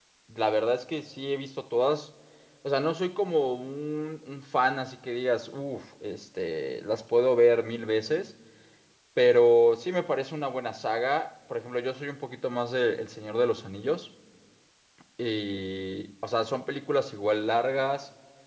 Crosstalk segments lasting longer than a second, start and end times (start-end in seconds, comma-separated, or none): none